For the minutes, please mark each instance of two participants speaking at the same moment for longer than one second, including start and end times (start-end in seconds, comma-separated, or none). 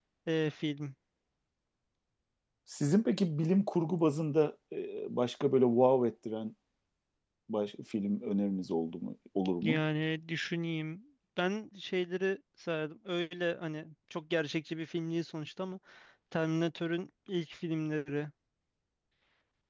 none